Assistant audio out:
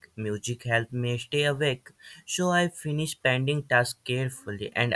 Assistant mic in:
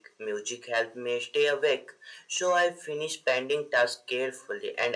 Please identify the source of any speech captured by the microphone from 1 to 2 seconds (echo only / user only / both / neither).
echo only